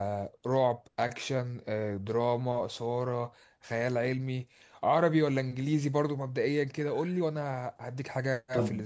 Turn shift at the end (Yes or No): Yes